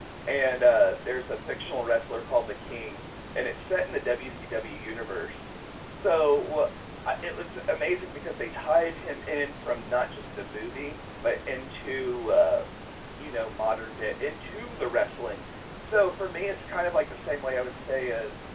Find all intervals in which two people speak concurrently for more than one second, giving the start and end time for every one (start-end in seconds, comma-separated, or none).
none